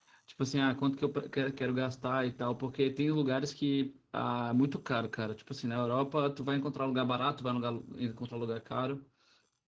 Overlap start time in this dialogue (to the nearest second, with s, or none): none